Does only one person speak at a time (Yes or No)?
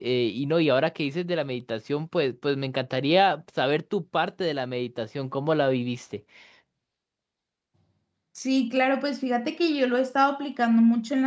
Yes